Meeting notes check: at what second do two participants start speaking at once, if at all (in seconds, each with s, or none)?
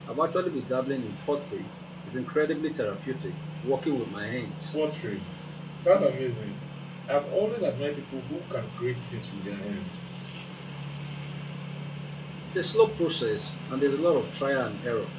none